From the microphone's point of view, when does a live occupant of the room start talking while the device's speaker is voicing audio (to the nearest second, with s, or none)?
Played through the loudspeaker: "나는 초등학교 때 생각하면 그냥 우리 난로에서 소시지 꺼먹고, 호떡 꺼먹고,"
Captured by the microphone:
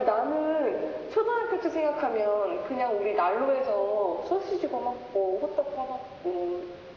none